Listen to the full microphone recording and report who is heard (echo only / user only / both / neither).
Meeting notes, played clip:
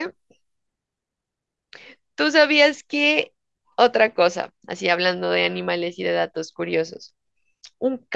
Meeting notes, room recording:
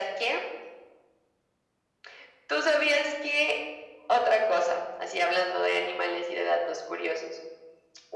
echo only